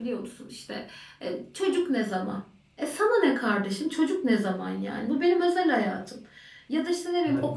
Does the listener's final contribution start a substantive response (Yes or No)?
No